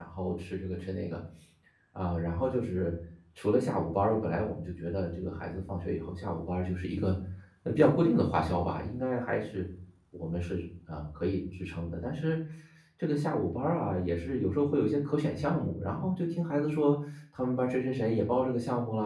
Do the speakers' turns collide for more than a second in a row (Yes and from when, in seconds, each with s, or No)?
No